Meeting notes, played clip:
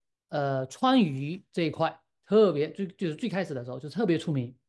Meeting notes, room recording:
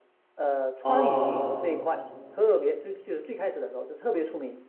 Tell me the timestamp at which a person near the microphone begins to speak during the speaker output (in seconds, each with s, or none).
0.8 s